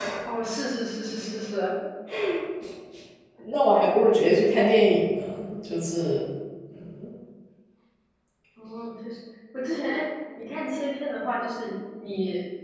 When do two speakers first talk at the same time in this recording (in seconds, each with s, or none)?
none